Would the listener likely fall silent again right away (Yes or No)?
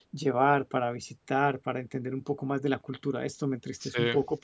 Yes